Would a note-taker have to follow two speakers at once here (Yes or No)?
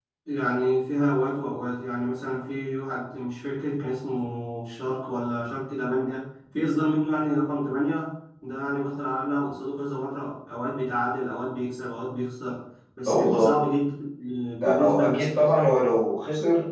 Yes